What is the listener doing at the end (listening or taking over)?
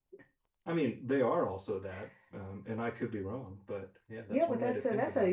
taking over